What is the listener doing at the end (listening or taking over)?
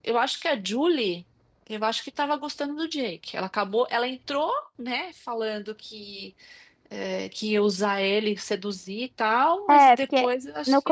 taking over